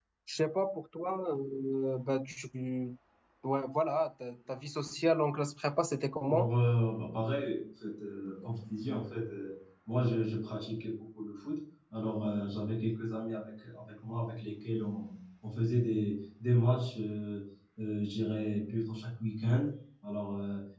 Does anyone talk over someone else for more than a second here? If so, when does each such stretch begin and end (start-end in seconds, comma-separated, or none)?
none